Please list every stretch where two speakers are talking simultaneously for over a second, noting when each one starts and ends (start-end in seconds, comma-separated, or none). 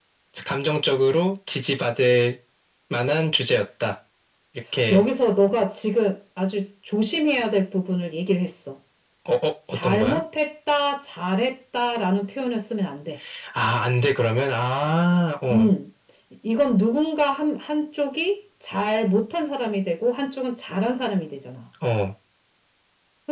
none